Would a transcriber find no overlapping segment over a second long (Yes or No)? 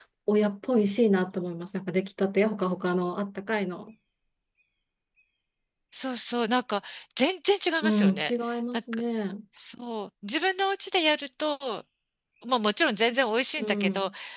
Yes